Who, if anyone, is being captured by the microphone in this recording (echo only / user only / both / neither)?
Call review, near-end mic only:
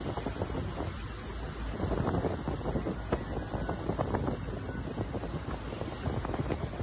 neither